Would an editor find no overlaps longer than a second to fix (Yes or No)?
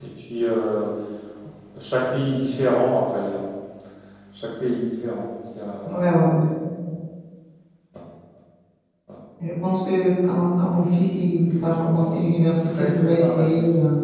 No